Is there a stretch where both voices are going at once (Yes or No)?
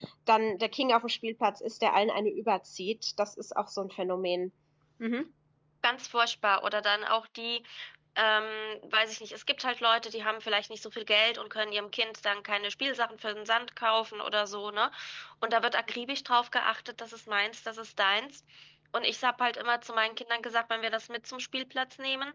No